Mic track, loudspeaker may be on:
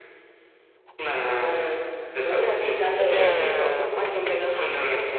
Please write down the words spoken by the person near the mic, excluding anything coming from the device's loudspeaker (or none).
Bener.